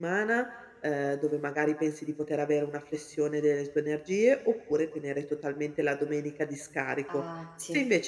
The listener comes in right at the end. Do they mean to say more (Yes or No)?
No